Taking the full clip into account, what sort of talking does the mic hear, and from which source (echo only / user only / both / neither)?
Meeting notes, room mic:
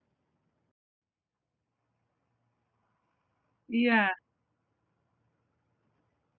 user only